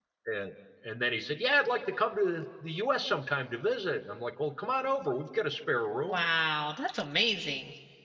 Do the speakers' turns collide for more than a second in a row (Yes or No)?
No